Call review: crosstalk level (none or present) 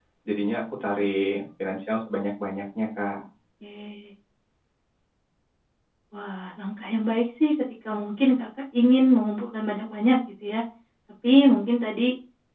none